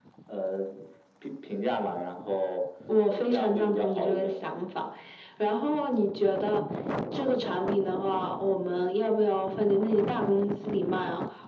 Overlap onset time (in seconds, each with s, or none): 2.9 s